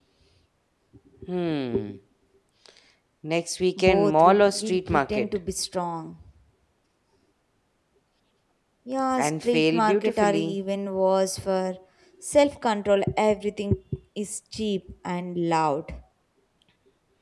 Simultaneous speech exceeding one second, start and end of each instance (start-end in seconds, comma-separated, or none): 3.8-5.3, 9.2-10.6